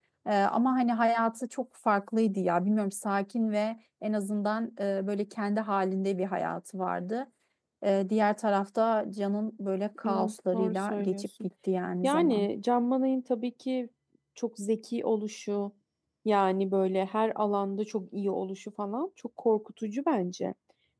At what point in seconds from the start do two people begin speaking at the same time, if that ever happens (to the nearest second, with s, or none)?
10 s